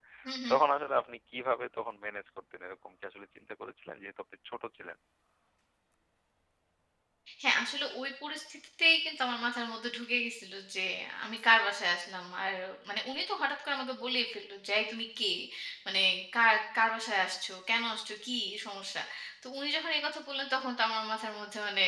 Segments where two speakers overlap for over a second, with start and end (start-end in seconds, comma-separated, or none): none